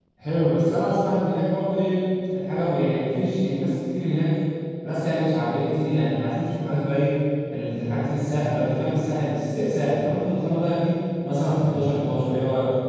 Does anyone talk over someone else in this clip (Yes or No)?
No